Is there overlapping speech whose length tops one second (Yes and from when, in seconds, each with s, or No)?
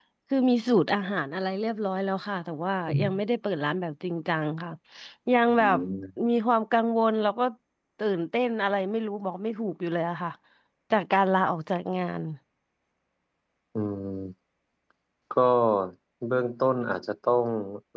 No